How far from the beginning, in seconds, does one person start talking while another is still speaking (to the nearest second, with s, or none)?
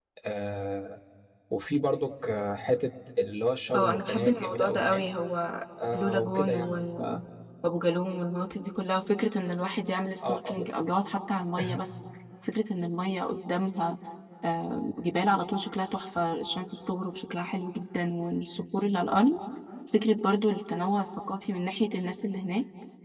4 s